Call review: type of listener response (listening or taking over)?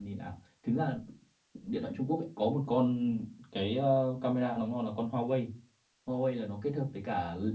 listening